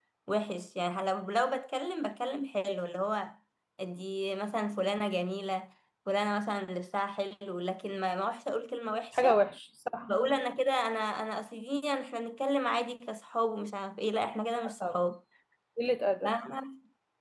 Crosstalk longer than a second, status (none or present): none